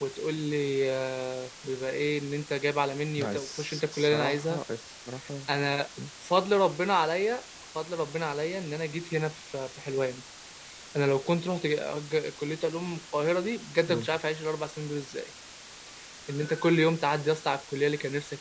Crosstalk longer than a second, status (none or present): present